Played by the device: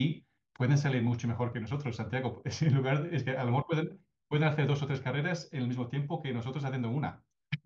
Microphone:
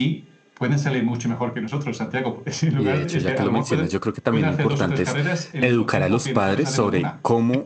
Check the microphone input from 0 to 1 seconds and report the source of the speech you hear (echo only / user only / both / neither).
echo only